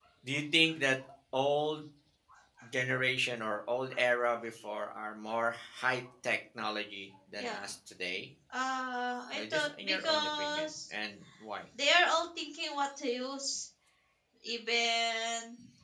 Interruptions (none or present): present